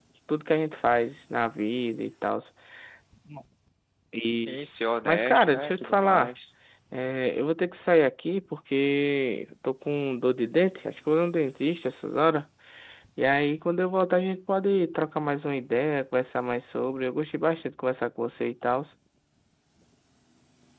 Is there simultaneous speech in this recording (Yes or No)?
Yes